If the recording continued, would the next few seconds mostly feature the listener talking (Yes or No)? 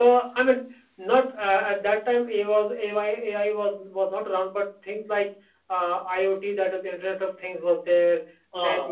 No